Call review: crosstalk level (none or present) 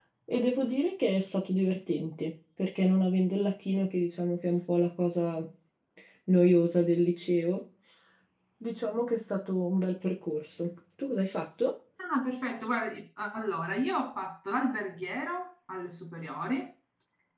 none